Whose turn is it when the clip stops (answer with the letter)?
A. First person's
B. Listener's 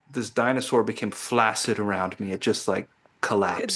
A